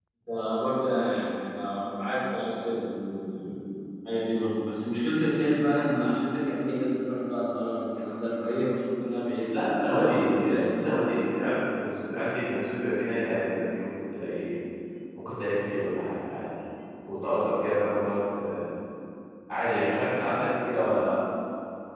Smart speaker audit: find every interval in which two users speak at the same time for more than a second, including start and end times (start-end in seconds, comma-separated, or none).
9.5-10.8